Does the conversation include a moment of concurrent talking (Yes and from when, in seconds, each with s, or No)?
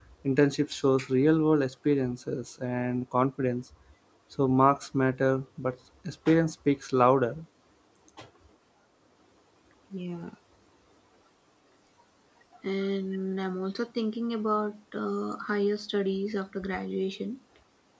No